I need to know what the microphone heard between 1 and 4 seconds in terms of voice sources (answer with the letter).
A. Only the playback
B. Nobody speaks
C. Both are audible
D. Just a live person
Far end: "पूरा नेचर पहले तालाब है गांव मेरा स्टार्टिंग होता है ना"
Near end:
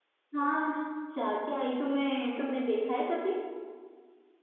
D